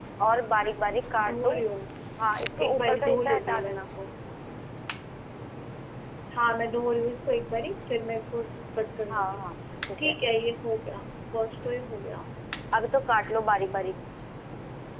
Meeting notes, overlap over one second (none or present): present